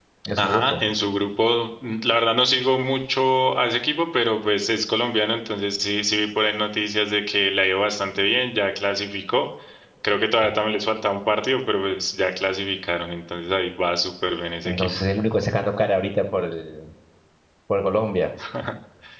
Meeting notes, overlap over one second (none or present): none